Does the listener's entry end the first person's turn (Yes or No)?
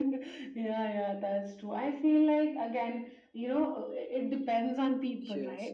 Yes